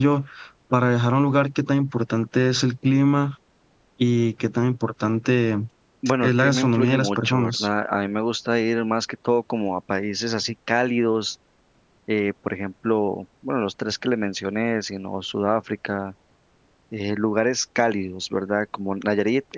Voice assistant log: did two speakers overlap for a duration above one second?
Yes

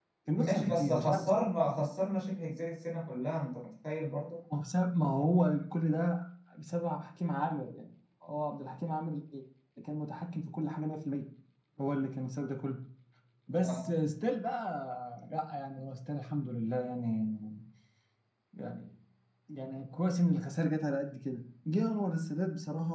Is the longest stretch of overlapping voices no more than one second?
No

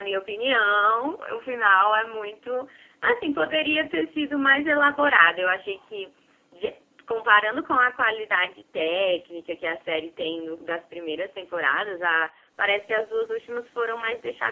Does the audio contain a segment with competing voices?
No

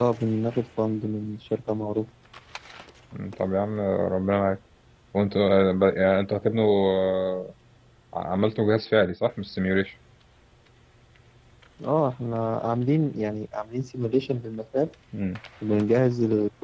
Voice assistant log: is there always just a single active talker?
Yes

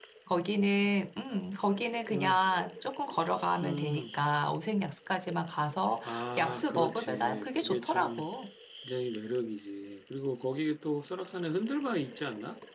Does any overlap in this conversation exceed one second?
Yes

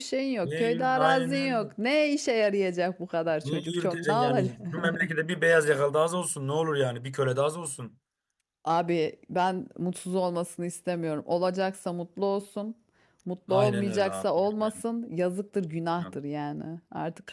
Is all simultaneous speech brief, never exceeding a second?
No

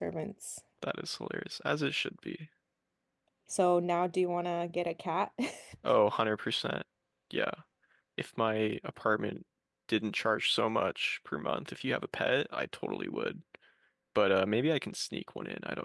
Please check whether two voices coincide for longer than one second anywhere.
No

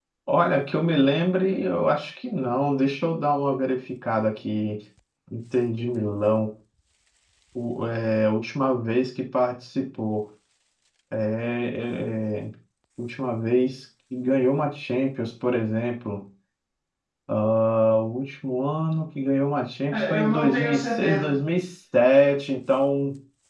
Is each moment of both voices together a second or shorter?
No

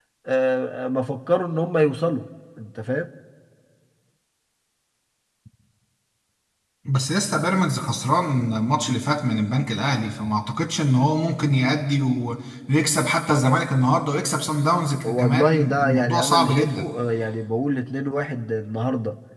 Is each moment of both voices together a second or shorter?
No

